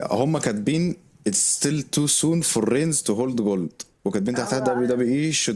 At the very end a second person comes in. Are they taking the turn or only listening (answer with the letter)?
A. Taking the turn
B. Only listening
B